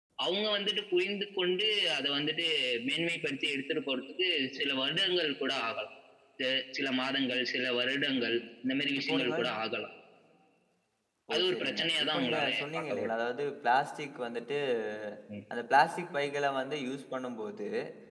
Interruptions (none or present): present